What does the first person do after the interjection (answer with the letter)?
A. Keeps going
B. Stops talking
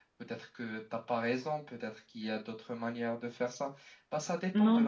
B